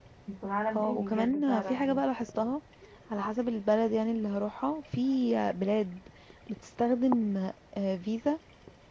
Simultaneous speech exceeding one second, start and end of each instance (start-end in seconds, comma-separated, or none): 0.8-2.0